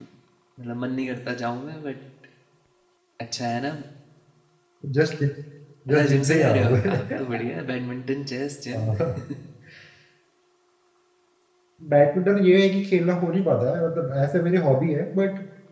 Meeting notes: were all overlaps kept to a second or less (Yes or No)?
No